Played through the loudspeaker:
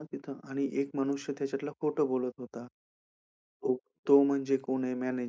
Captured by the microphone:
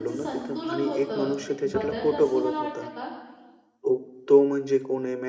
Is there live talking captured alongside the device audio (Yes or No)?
Yes